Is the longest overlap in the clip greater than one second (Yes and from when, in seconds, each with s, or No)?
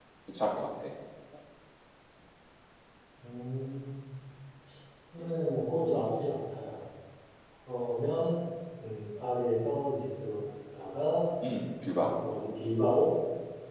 No